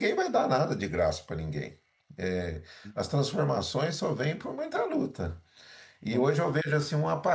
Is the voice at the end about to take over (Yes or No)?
No